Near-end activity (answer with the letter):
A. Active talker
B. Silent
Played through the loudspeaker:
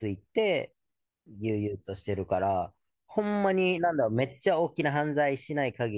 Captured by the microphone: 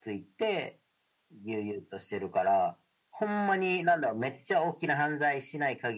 B